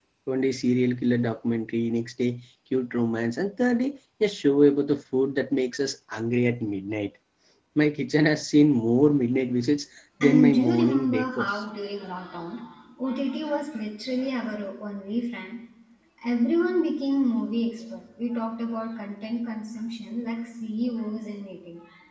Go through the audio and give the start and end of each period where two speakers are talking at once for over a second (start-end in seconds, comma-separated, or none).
10.2-11.6